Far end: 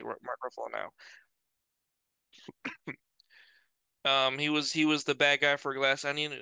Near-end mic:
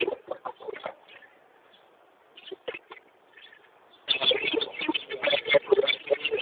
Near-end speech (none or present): present